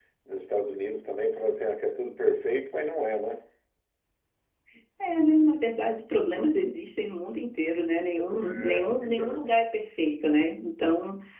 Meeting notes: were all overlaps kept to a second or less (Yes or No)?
No